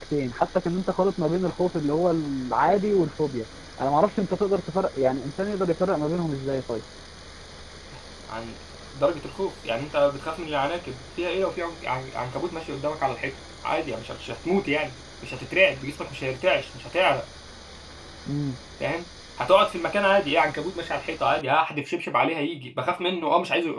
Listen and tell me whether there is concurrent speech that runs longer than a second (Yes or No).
No